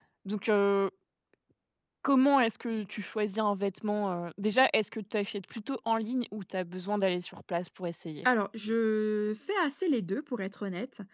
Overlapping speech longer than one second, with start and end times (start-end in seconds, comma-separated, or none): none